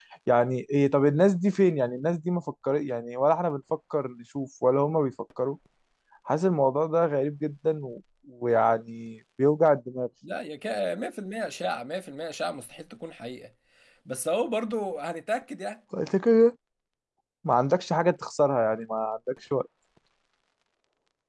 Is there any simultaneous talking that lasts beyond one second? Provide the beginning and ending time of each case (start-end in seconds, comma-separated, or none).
none